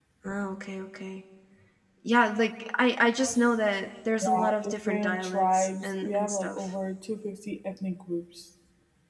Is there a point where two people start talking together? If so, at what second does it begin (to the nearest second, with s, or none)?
4 s